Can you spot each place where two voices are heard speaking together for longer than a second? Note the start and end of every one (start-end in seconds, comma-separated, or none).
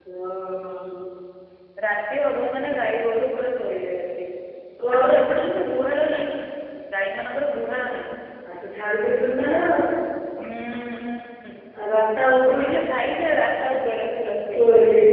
none